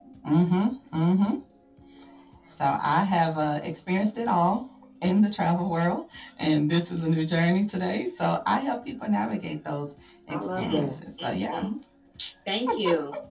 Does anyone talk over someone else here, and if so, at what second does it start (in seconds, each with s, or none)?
10.3 s